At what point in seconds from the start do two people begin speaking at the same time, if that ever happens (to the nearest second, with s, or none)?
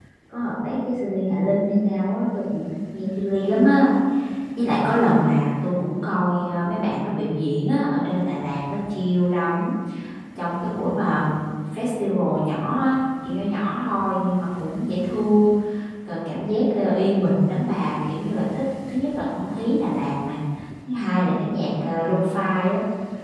none